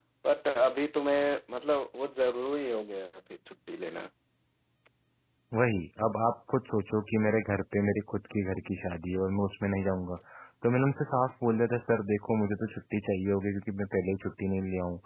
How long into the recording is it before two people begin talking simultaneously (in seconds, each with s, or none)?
none